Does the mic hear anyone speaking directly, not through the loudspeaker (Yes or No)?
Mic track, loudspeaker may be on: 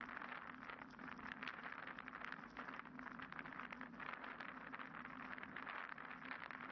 No